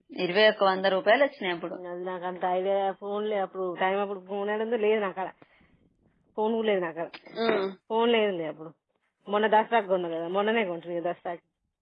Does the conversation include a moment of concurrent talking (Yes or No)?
No